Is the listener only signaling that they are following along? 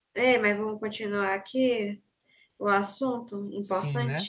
No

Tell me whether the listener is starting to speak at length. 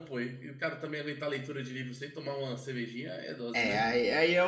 Yes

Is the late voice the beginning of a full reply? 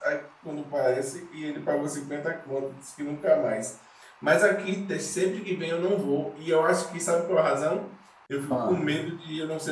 No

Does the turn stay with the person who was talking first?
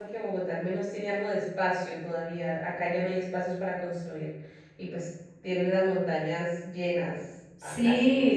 No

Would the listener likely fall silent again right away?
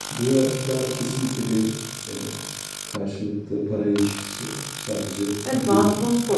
No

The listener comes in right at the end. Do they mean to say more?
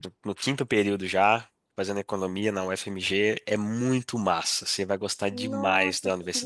Yes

